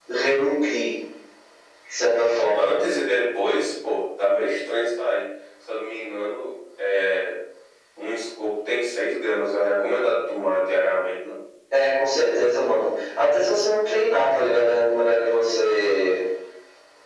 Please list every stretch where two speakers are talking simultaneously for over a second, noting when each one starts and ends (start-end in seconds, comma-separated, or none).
none